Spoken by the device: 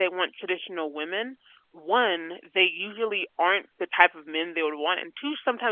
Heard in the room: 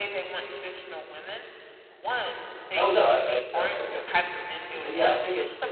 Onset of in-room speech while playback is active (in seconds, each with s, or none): 2.8 s